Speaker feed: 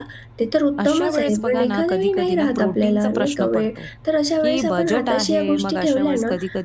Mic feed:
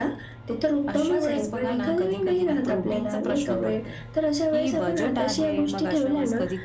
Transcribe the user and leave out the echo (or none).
none